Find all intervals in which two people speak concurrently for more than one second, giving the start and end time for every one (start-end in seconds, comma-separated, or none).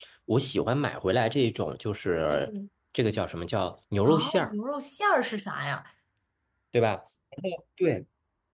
none